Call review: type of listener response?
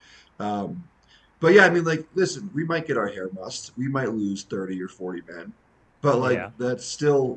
listening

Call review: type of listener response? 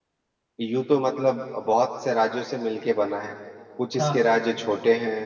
listening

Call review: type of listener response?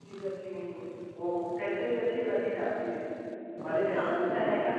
taking over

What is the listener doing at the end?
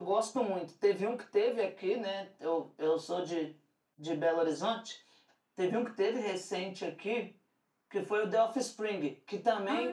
listening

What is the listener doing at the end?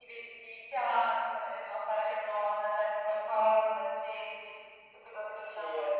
taking over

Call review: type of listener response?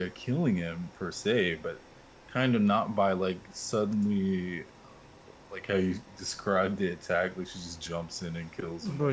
taking over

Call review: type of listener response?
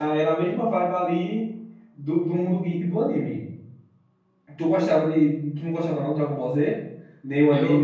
taking over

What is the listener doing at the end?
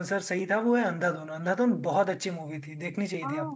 taking over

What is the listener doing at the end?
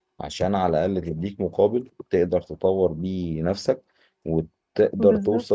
listening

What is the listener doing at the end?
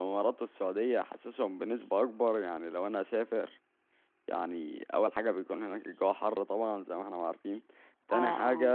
listening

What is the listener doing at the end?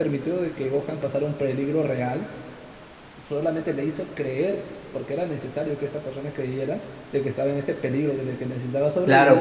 taking over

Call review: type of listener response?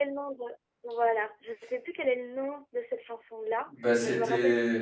taking over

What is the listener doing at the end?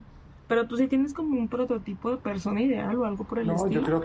taking over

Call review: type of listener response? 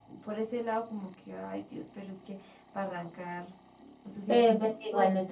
taking over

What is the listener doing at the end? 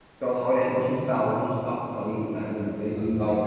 taking over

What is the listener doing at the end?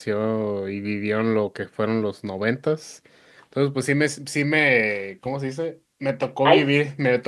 listening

